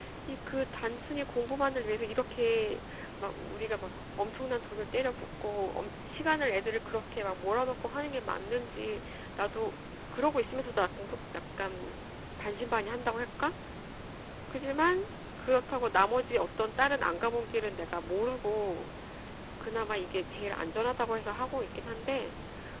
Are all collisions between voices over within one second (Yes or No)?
Yes